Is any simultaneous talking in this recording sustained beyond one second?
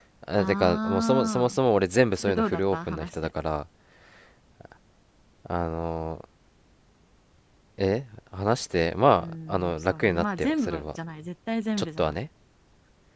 Yes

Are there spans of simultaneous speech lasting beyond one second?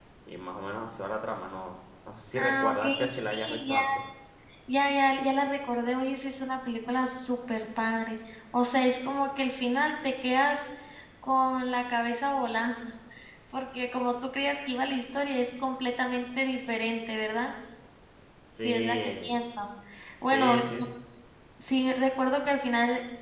Yes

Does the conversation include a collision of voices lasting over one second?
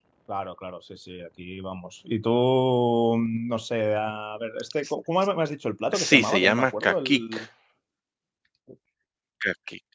Yes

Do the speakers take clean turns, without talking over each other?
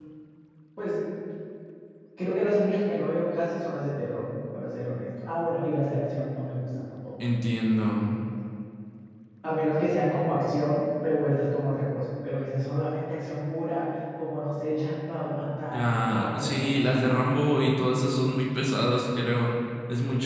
No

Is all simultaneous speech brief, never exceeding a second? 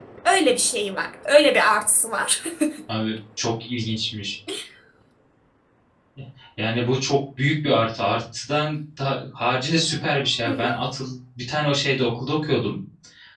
Yes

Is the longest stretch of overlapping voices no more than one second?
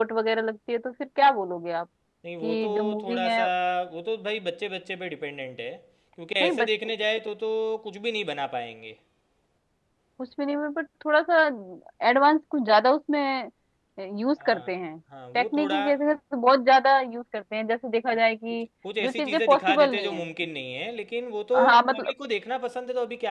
No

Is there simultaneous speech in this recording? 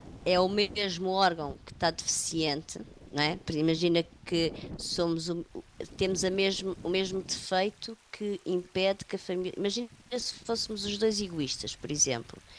No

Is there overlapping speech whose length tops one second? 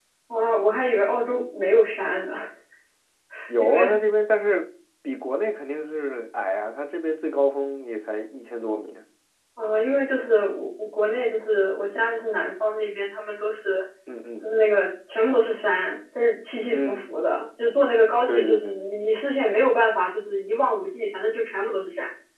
No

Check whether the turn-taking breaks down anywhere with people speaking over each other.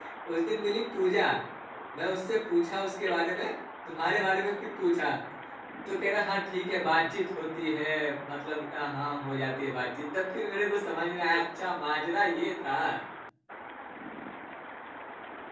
No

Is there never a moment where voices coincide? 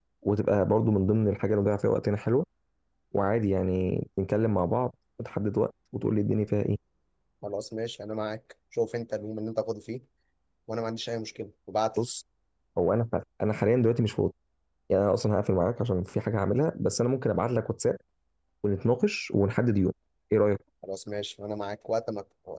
Yes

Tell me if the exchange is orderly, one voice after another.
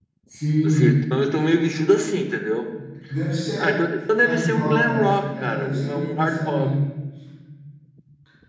No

